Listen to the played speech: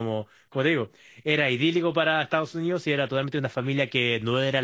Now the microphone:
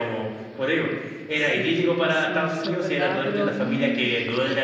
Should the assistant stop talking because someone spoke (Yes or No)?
Yes